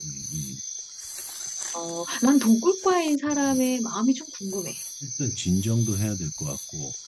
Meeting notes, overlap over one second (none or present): none